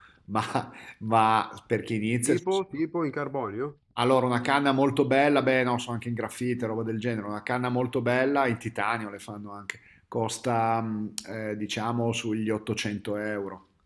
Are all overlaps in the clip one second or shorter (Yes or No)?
Yes